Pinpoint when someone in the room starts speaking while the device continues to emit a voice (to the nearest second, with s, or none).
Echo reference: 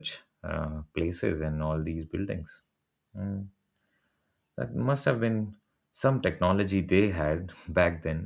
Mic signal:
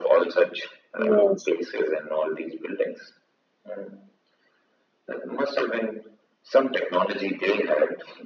1 s